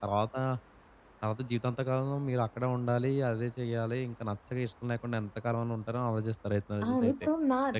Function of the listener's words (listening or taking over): taking over